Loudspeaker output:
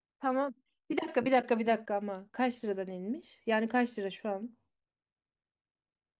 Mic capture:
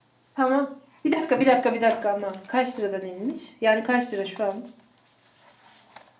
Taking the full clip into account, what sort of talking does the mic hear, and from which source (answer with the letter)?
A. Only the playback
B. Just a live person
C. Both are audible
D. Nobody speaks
A